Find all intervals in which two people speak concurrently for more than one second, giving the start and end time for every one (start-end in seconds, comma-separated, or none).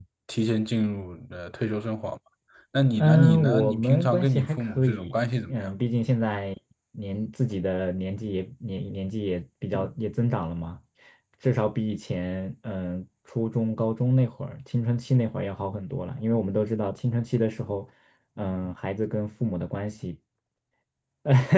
3.0-5.7